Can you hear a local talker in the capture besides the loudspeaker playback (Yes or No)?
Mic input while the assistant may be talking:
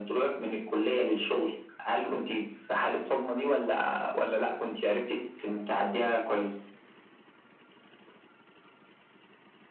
No